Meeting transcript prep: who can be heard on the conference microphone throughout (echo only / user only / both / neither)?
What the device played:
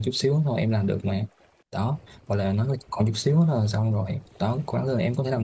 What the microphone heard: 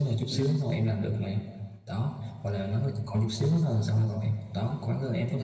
both